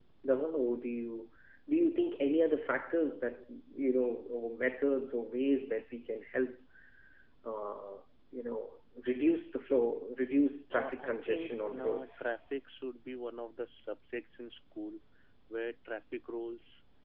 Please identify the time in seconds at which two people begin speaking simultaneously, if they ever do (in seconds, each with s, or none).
10.7 s